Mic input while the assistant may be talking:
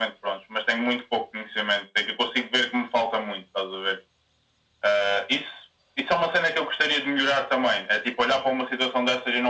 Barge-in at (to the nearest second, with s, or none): none